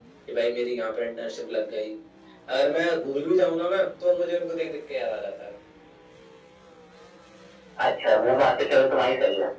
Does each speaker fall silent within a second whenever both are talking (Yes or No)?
Yes